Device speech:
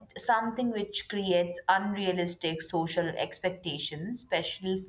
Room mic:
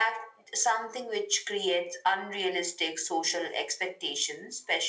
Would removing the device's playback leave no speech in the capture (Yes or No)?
Yes